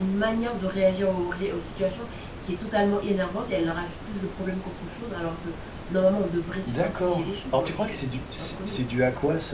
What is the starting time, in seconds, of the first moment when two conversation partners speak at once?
7 s

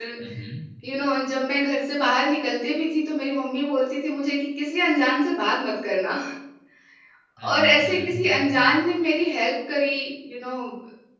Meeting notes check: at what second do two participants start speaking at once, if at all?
7 s

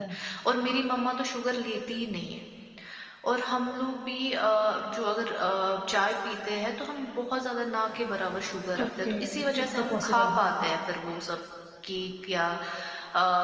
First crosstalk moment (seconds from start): 9 s

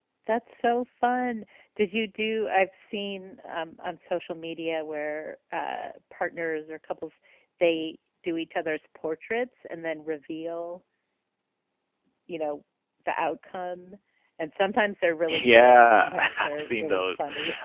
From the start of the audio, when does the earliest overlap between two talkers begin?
15 s

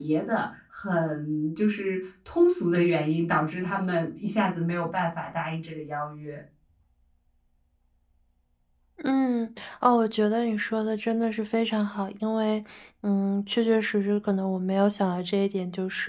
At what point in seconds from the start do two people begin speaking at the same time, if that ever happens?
none

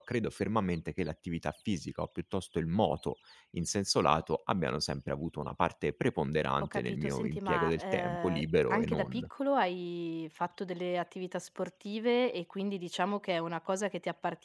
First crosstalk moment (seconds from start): 7 s

